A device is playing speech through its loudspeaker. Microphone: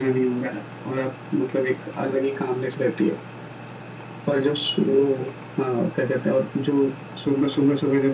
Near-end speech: none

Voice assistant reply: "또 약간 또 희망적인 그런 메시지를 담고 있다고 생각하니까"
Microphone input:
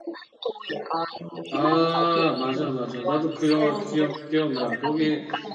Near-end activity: present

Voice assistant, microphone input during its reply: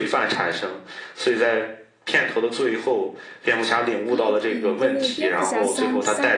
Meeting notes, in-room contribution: present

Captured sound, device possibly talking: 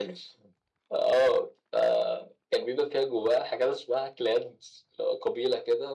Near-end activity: none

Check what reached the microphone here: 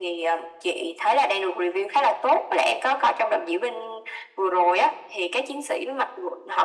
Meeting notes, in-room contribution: none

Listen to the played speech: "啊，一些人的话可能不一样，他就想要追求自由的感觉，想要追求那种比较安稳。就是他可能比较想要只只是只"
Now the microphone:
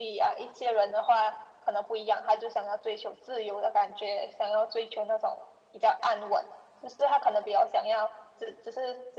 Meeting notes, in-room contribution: none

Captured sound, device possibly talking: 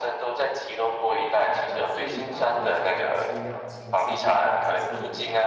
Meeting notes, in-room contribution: present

